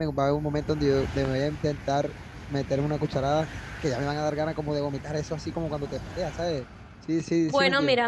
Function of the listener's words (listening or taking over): taking over